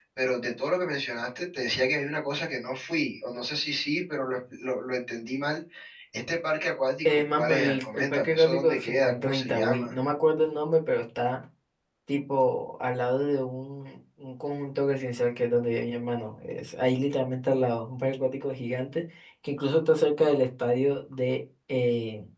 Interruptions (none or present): present